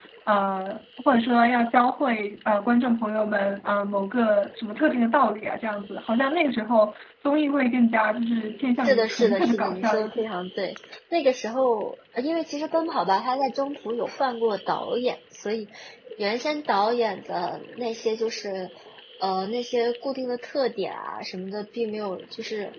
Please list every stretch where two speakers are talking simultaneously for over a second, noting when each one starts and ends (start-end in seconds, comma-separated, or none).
8.8-10.2